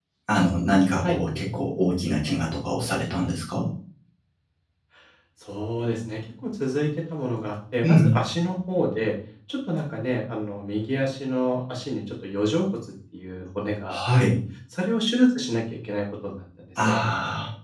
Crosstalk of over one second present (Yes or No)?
No